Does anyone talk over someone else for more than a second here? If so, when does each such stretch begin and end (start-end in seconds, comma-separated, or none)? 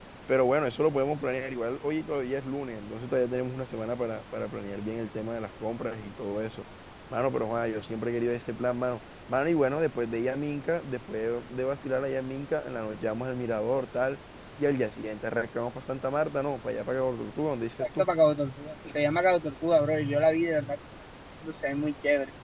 none